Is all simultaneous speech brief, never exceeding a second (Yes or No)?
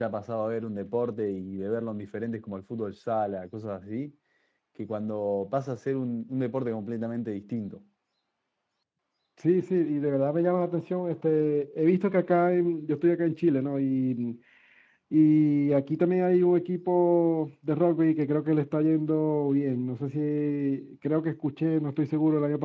Yes